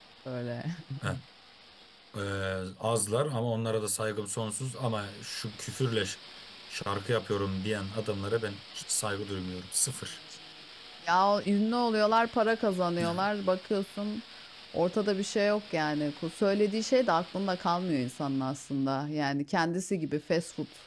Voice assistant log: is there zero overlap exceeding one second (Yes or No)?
Yes